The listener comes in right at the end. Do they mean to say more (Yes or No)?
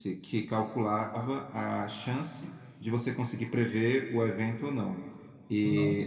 No